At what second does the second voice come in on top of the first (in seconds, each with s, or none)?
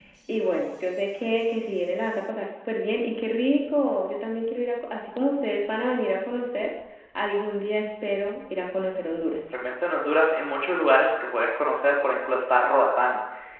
none